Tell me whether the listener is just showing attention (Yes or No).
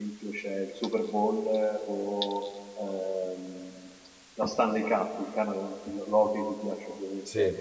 Yes